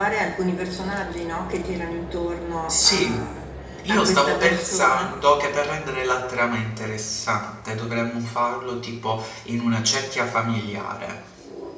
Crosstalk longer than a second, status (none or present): present